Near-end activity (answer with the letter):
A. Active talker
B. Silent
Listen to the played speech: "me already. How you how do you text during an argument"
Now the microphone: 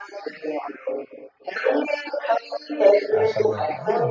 A